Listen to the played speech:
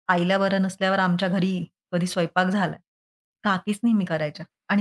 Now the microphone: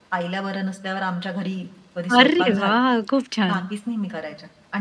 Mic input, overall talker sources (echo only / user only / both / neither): both